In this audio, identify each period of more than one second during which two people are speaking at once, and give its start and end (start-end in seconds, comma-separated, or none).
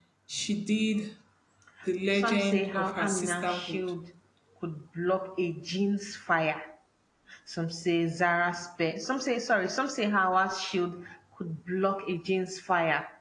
2.1-3.8